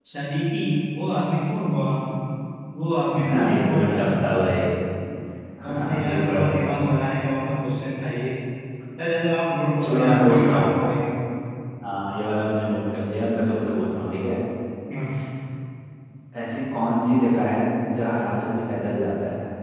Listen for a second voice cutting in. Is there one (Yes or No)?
Yes